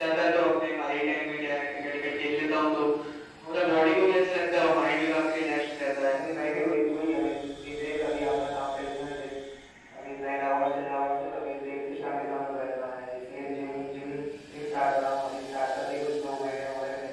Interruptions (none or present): none